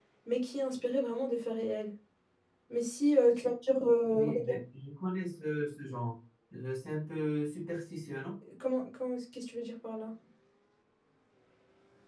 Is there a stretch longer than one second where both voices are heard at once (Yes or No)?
No